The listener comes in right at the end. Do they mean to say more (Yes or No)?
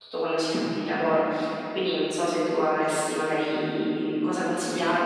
Yes